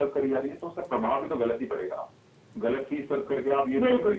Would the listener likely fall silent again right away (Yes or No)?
Yes